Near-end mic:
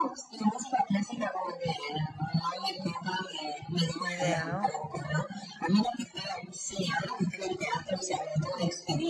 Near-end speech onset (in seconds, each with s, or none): 4.0 s